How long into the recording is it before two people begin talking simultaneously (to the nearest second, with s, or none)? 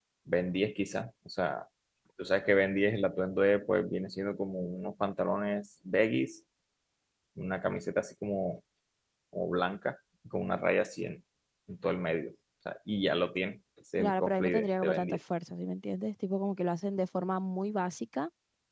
14 s